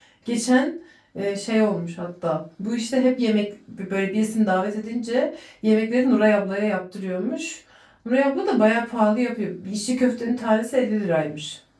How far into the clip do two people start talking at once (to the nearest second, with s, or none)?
none